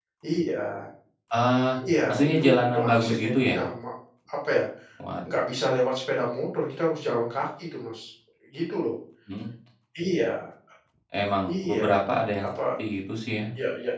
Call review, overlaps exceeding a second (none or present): present